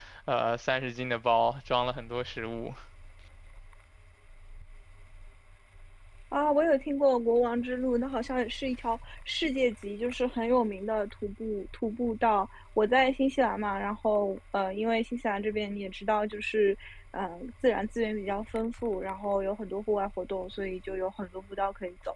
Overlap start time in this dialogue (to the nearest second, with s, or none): none